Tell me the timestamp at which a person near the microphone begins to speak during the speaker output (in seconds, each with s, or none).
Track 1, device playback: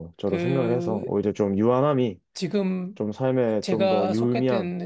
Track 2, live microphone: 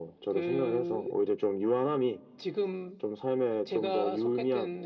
none